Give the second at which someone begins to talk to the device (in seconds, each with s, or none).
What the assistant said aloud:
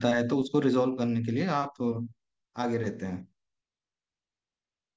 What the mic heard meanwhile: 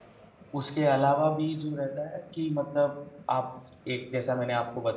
0.6 s